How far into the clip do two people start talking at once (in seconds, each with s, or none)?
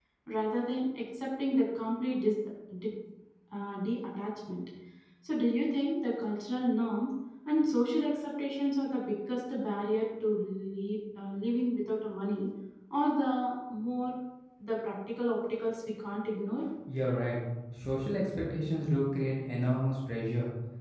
none